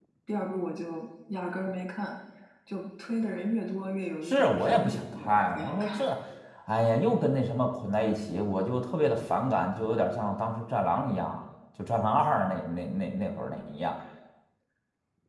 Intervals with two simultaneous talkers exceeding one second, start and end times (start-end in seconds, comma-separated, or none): 4.2-6.1